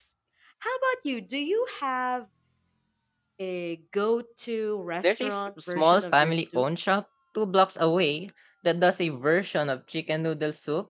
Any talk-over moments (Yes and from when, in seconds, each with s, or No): Yes, from 5.0 s